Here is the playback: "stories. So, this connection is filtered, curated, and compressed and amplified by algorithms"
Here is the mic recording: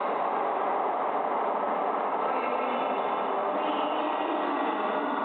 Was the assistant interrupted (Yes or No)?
No